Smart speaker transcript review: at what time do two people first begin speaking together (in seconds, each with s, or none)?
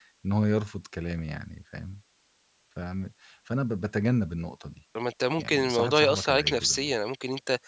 5.4 s